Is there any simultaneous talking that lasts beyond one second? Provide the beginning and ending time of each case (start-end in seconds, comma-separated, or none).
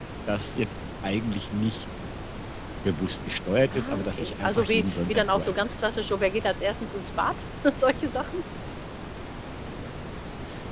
3.7-5.5